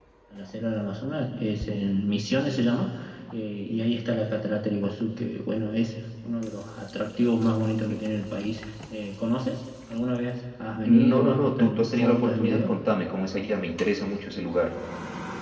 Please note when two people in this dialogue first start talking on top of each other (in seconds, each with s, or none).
10.8 s